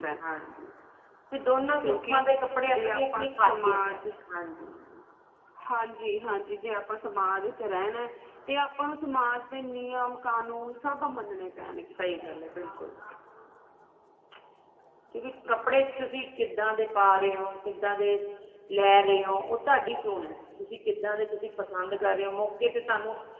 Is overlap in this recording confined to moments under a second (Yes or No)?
No